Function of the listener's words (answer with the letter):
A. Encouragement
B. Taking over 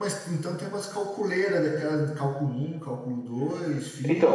B